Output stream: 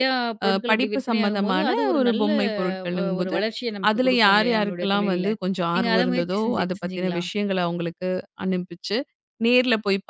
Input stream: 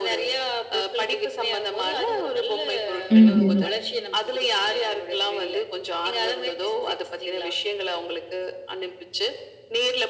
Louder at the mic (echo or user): user